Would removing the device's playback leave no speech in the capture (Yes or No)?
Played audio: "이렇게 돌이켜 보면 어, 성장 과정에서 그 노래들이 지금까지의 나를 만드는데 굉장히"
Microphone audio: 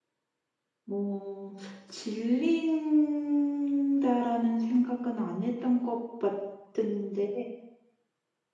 No